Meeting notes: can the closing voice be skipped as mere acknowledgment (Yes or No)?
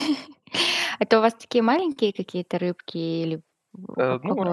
No